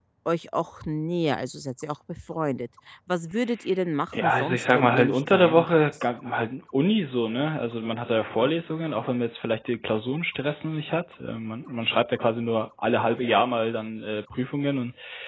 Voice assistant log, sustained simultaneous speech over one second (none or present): present